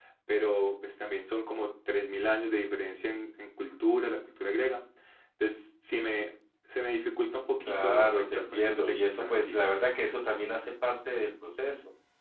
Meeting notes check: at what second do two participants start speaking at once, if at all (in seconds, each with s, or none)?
7.6 s